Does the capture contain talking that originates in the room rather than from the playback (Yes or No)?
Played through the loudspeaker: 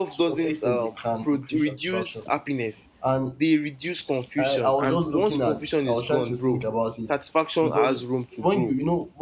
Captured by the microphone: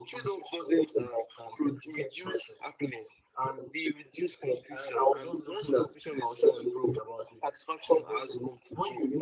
No